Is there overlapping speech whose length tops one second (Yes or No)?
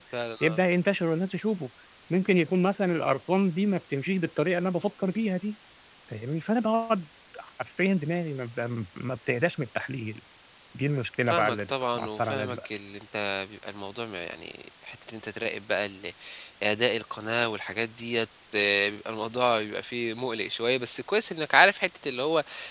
Yes